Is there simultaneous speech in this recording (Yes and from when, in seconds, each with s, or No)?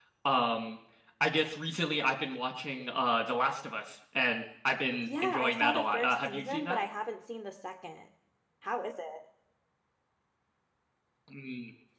Yes, from 5.0 s